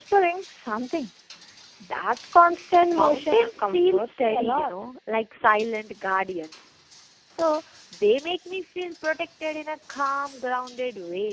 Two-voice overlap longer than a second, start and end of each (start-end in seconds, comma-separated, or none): 2.9-4.7